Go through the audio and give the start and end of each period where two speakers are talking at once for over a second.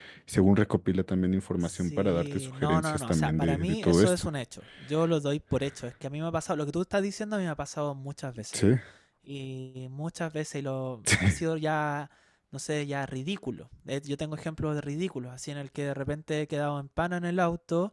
1.6-4.2

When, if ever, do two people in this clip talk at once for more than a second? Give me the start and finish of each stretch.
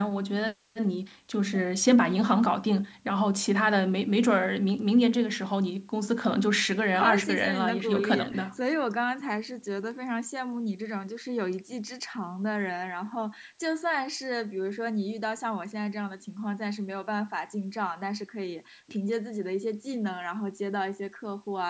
7.0-8.5

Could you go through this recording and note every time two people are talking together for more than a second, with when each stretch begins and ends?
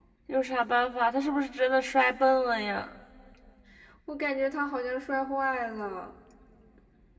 none

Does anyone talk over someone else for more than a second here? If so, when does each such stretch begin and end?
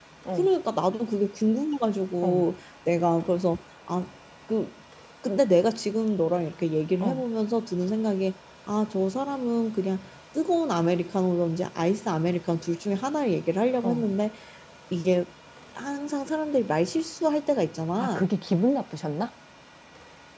none

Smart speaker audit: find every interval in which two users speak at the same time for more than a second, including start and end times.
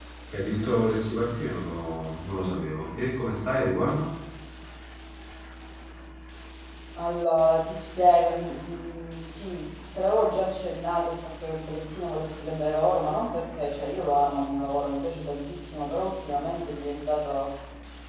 none

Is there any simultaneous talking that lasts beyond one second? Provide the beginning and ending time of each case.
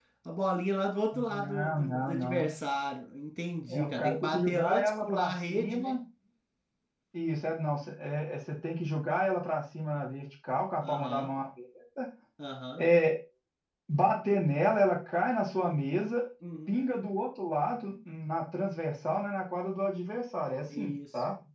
1.1-2.5, 3.7-5.9

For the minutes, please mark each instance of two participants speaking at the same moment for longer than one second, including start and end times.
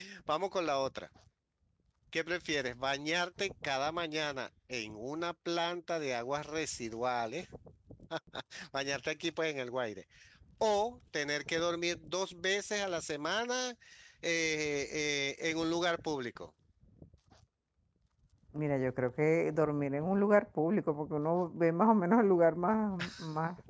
none

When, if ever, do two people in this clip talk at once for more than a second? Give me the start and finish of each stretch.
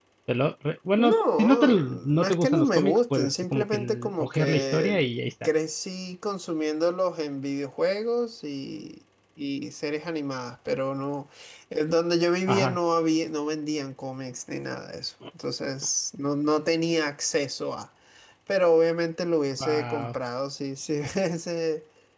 1.0-5.0

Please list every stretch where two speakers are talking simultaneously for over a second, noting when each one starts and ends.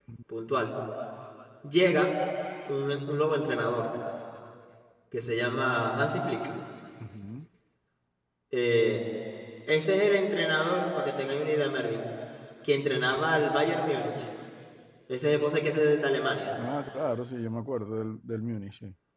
none

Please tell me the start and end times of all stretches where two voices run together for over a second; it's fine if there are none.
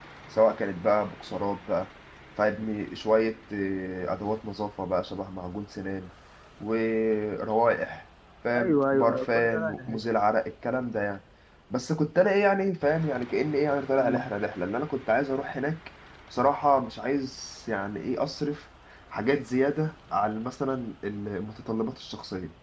8.6-10.0

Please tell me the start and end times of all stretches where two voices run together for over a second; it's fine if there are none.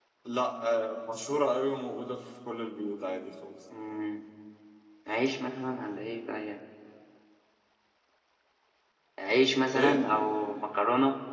none

